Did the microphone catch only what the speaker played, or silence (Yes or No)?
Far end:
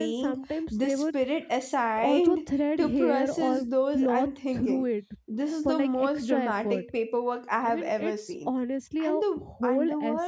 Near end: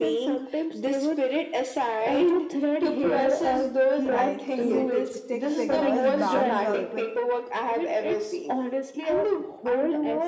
No